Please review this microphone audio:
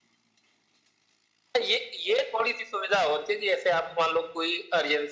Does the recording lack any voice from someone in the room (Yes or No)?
Yes